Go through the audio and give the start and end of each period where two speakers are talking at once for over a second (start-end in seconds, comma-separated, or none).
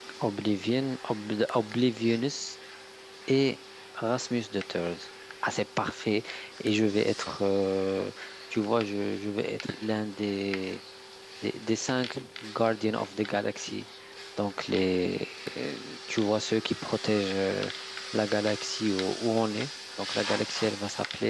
none